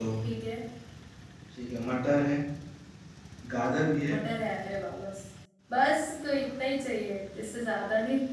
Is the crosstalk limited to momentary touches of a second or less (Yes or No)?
Yes